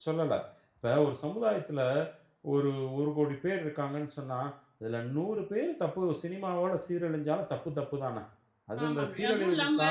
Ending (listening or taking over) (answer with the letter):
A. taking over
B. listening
A